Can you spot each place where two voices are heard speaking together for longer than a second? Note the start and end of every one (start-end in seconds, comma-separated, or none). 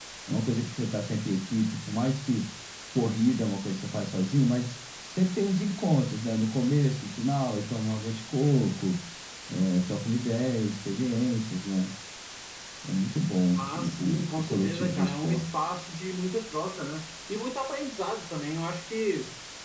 13.6-15.4